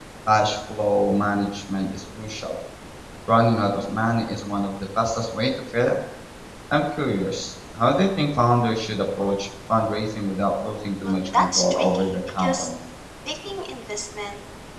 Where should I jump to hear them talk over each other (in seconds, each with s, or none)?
11.0 s